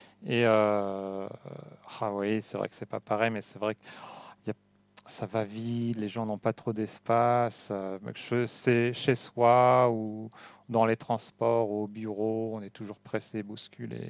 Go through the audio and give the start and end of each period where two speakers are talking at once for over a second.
none

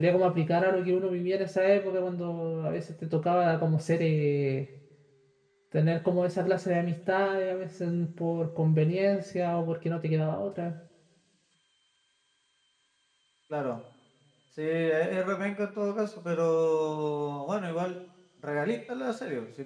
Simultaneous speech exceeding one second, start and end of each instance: none

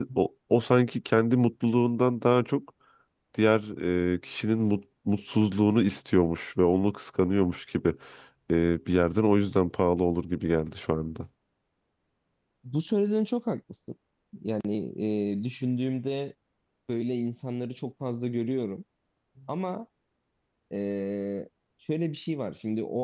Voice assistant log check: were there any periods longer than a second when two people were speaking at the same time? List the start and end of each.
none

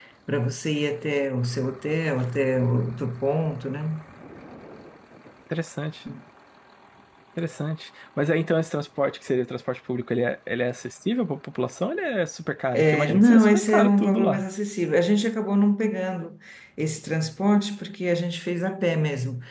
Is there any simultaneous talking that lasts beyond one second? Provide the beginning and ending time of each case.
12.7-14.4

